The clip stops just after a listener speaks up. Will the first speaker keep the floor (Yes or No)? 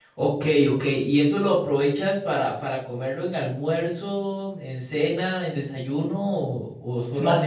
No